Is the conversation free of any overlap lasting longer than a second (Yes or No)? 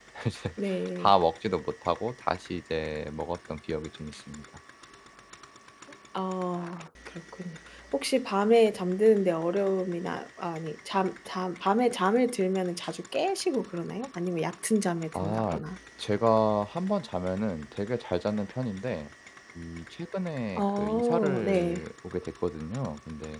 No